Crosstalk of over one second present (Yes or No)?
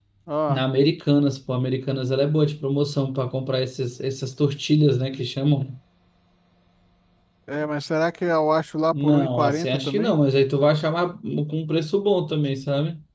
Yes